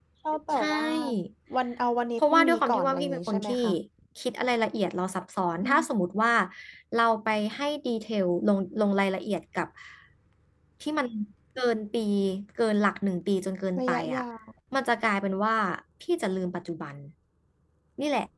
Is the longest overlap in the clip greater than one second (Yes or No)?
Yes